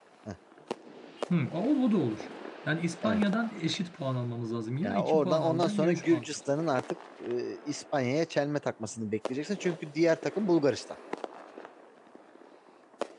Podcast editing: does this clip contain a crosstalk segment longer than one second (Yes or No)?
Yes